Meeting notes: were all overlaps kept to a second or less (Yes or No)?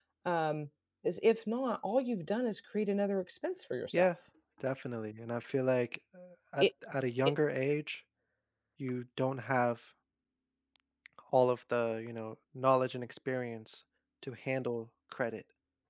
Yes